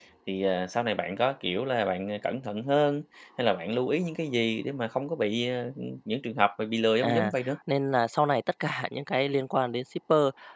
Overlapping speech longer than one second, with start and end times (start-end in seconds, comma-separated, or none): none